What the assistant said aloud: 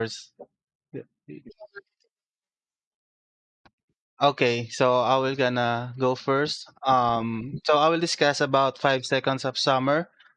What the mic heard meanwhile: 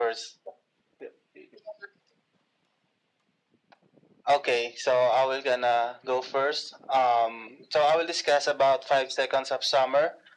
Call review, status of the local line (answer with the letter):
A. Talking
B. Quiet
B